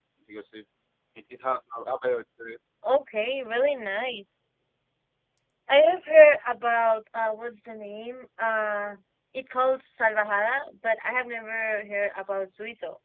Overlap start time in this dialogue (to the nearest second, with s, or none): none